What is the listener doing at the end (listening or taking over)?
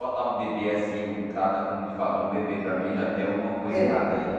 taking over